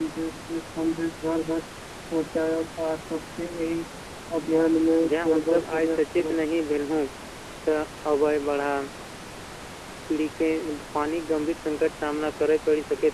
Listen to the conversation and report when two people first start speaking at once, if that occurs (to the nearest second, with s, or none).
5 s